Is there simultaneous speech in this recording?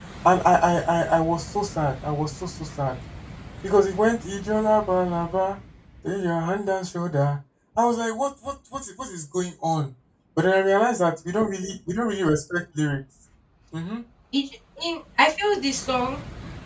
No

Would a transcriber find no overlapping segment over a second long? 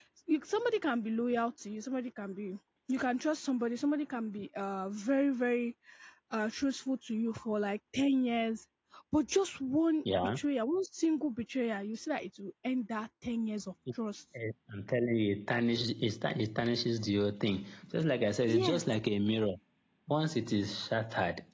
Yes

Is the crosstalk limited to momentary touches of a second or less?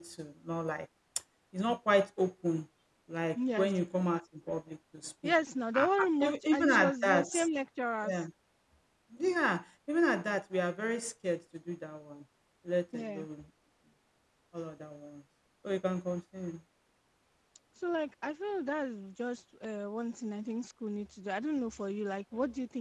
No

